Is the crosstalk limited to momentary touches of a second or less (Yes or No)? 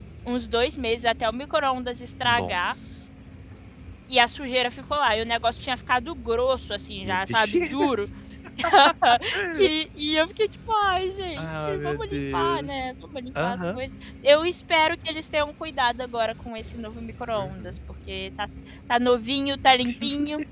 No